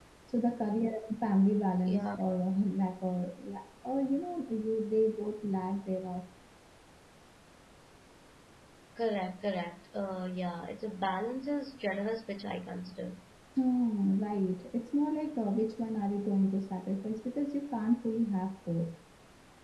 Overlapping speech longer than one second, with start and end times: none

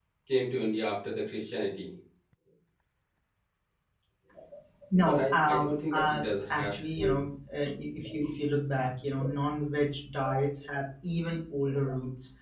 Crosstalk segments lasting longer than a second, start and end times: 5.0-7.2

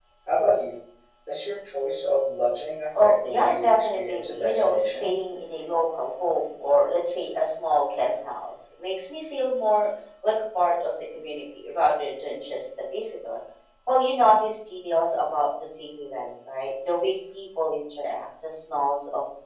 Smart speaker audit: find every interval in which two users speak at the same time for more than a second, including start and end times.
3.0-5.1

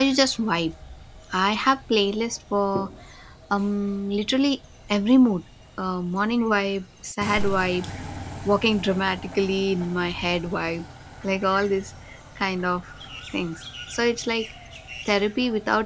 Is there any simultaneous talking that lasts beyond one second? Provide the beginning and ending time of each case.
none

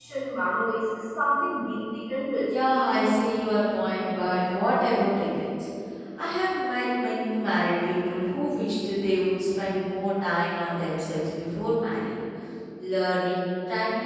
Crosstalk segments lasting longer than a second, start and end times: none

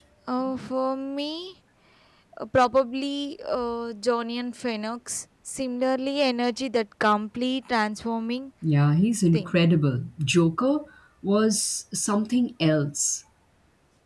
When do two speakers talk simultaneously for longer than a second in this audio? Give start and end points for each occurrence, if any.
none

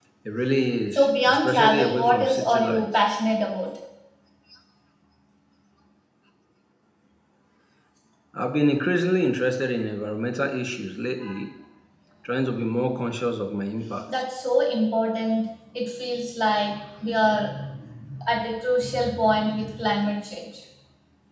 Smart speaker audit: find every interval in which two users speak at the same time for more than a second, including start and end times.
0.9-3.0

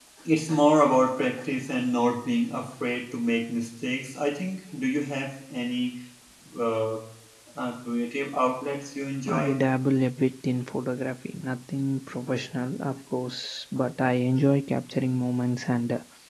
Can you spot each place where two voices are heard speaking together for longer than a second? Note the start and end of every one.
none

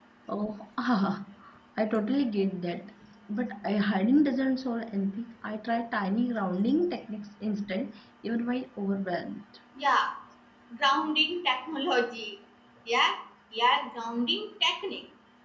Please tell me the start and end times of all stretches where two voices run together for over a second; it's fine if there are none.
none

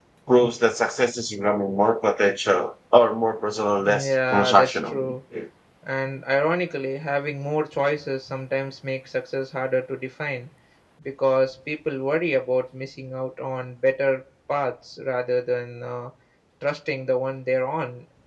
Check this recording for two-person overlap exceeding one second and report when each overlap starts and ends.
3.8-5.1

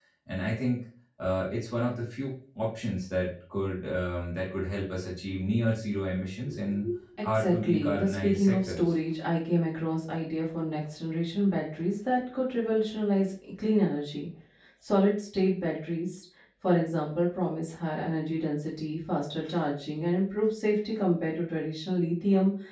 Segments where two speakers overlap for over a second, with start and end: 7.2-8.9

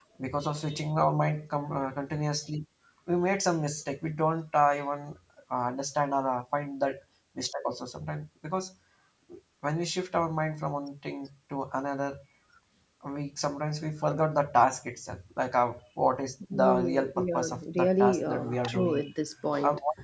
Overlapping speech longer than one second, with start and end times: 16.5-19.0

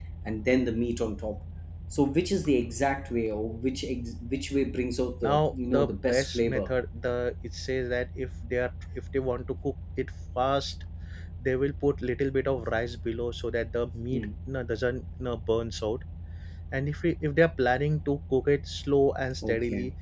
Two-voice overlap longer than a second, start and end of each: 5.2-6.7

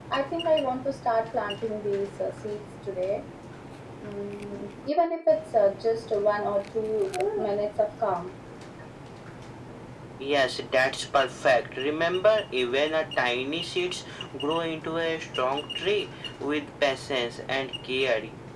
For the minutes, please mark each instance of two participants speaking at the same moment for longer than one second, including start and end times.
none

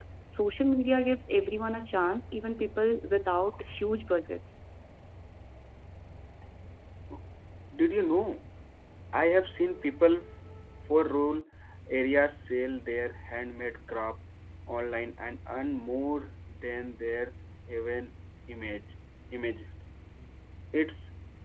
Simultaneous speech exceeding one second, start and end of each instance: none

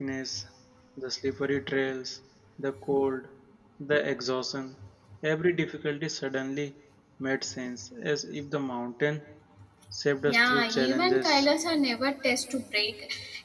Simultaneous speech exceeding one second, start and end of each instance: 10.2-11.5

